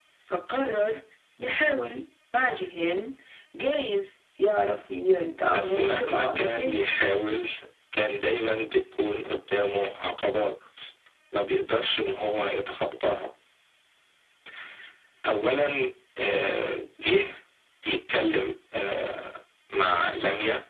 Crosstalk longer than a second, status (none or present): present